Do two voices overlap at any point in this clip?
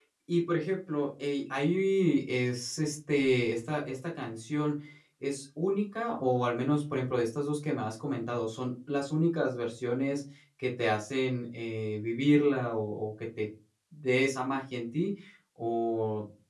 No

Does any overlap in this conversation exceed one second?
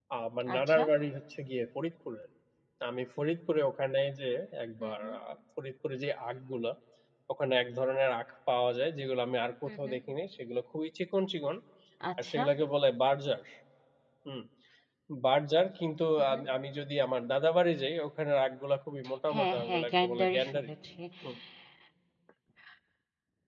Yes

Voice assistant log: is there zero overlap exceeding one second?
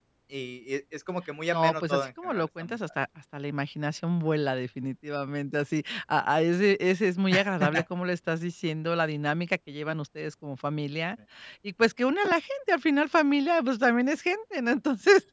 No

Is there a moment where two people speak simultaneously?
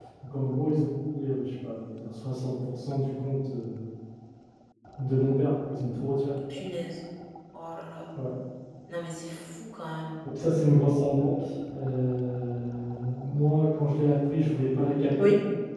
No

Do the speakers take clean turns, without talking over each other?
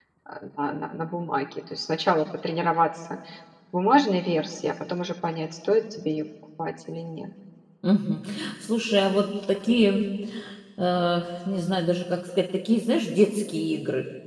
Yes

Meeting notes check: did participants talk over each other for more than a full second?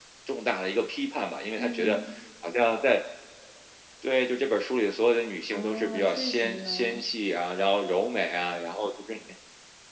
Yes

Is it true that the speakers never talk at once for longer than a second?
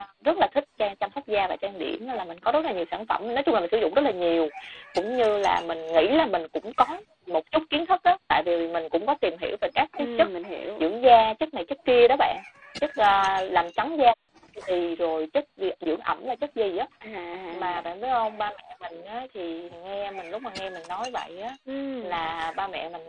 Yes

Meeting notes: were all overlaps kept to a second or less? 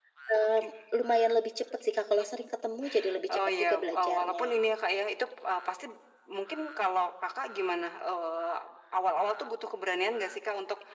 No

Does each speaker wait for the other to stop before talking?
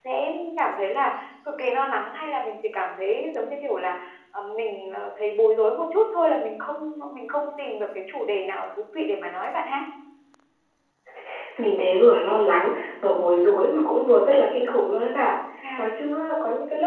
Yes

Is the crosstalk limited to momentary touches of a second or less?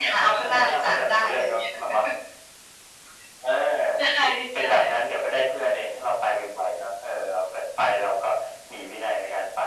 No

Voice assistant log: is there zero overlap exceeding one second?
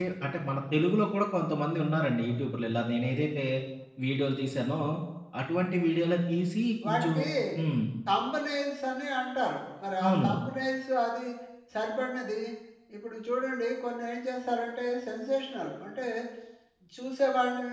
Yes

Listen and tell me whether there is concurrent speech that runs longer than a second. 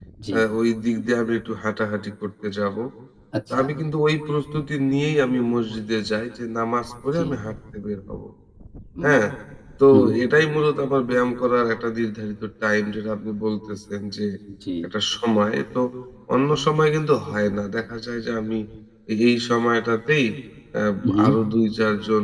No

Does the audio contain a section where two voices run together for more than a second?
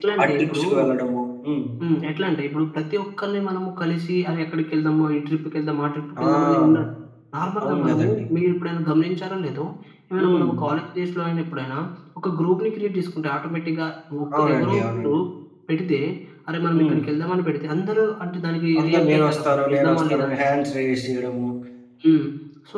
Yes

